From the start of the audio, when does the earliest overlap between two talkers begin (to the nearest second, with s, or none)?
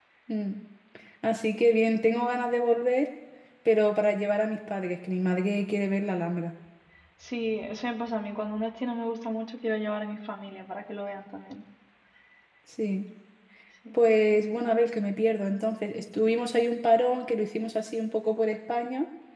none